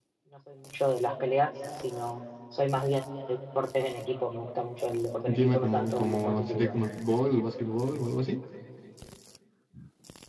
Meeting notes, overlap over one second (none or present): present